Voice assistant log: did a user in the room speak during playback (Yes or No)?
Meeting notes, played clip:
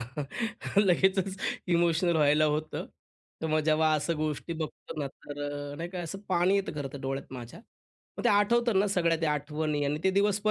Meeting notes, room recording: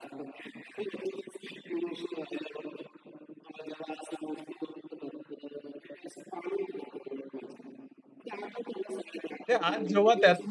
Yes